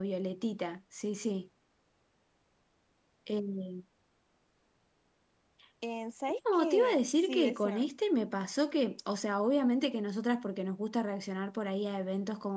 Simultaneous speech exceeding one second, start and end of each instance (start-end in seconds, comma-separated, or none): 6.5-7.9